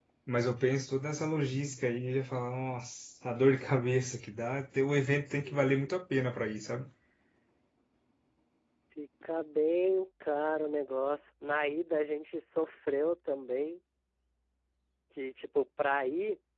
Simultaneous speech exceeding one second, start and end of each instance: none

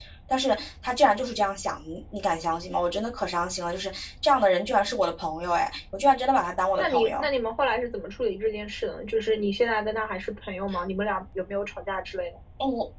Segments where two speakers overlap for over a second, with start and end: none

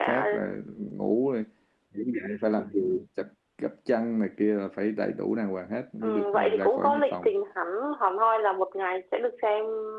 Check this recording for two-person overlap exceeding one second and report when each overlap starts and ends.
6.0-7.3

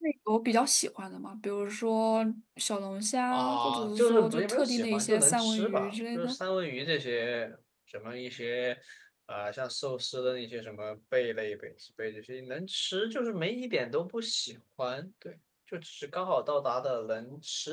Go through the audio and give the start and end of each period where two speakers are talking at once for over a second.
3.3-6.3

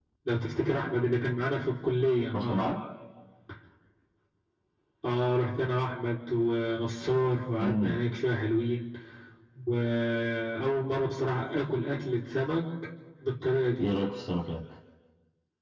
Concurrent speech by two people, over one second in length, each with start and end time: none

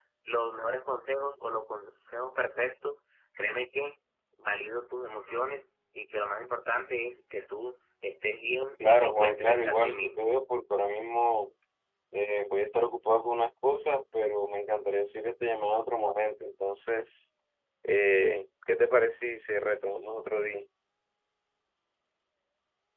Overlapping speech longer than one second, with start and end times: 8.8-10.2

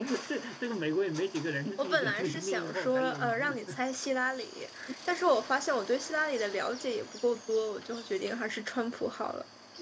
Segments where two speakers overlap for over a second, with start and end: 1.8-3.8

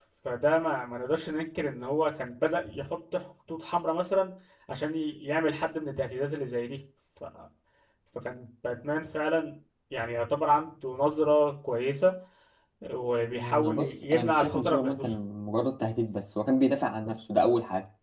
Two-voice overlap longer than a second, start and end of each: 13.3-15.2

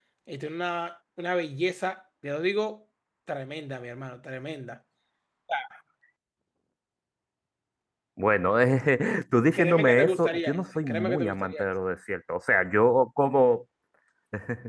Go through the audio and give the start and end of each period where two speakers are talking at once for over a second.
9.5-11.7

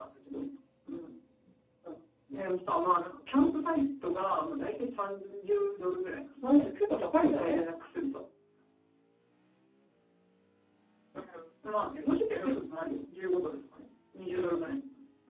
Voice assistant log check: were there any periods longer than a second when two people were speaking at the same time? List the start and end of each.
none

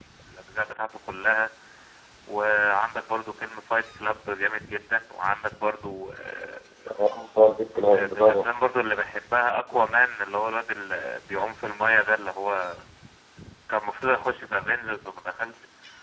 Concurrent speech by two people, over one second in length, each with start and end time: none

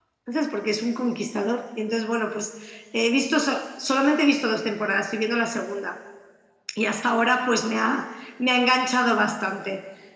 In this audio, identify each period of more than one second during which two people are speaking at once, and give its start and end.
none

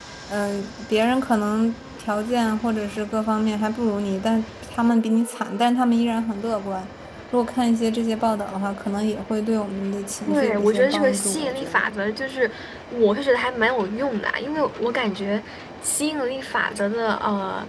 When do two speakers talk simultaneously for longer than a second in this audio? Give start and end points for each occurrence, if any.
10.3-11.9

